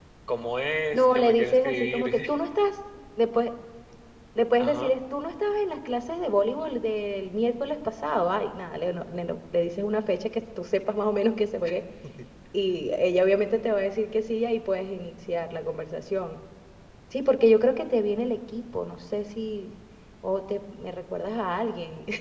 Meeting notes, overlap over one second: present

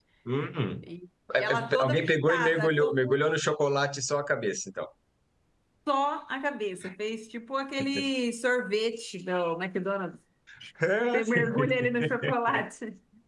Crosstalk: present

